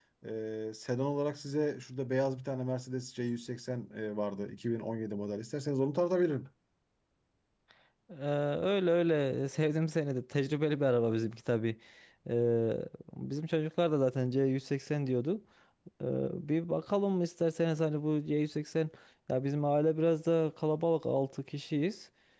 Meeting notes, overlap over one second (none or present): none